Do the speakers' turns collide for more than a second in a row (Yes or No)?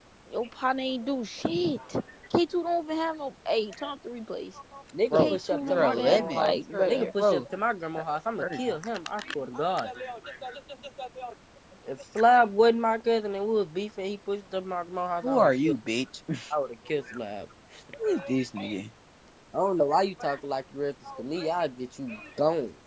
Yes